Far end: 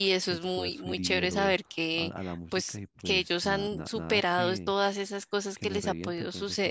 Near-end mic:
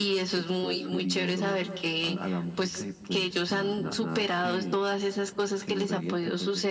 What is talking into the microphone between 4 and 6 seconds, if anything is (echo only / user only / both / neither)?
echo only